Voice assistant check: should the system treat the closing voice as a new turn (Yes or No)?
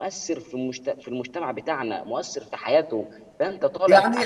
Yes